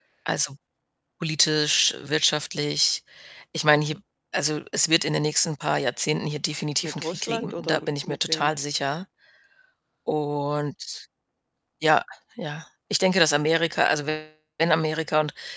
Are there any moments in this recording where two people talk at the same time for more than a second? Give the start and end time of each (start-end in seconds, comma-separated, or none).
6.8-8.5